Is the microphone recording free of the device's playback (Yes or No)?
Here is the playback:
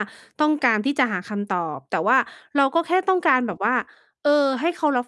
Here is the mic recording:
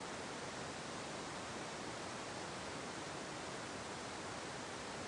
Yes